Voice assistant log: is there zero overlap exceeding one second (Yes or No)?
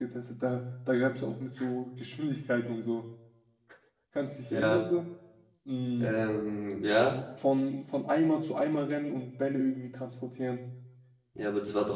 Yes